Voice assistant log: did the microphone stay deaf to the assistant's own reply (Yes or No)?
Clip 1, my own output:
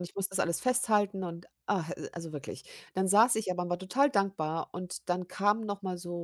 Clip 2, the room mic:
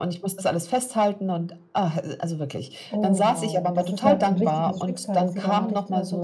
No